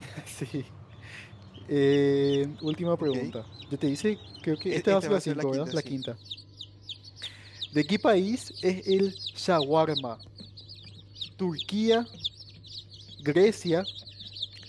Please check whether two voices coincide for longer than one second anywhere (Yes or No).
Yes